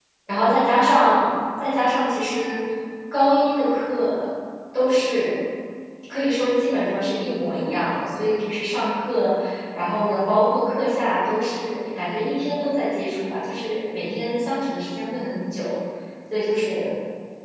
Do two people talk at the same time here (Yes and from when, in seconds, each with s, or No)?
No